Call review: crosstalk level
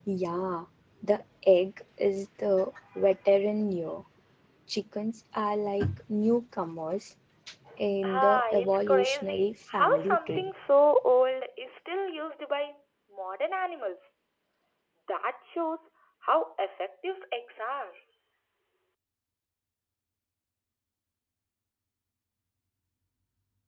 present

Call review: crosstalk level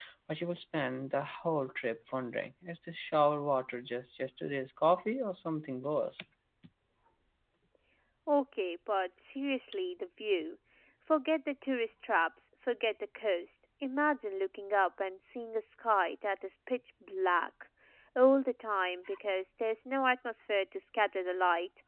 none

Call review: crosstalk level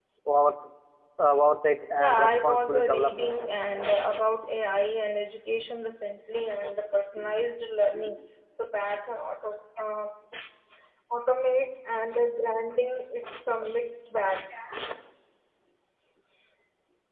present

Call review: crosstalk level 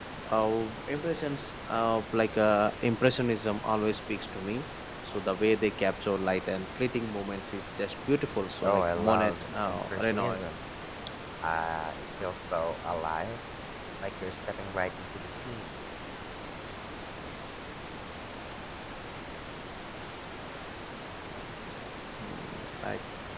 present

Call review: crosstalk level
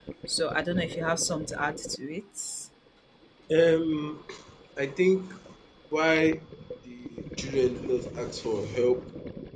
none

